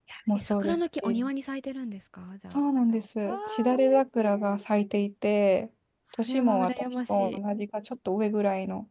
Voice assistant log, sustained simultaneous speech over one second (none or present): present